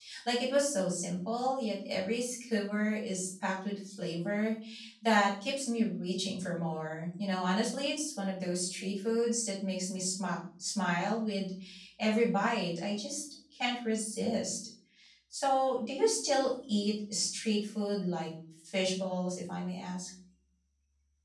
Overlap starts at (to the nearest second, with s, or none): none